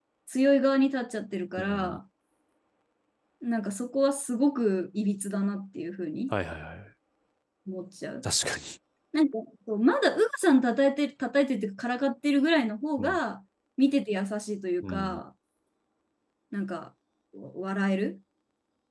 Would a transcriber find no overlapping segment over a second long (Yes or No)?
Yes